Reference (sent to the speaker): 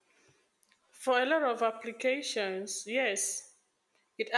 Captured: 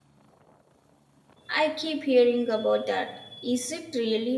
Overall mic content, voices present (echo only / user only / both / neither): user only